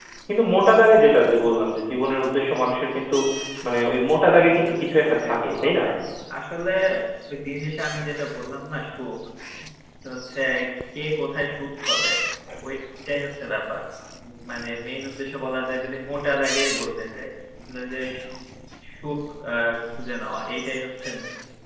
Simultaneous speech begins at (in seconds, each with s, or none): 4.3 s